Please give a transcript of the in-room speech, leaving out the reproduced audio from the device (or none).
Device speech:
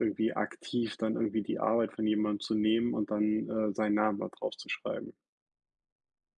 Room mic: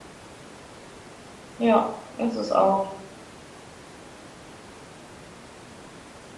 Ja, ist es auch.